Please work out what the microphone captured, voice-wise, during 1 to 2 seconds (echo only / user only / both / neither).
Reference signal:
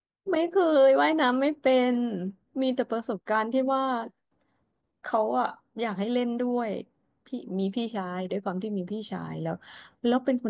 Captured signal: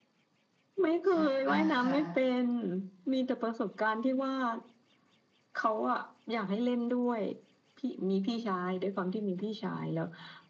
both